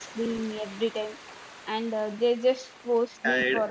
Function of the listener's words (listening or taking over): listening